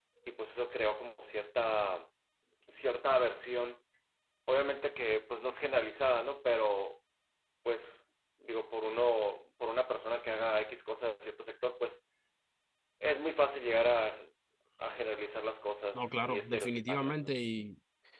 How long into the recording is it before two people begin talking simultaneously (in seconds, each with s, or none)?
16.0 s